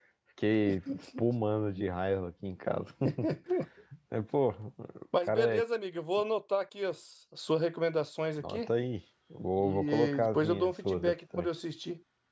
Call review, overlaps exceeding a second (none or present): present